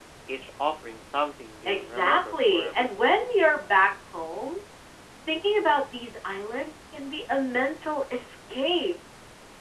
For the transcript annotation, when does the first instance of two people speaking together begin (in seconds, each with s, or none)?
1.6 s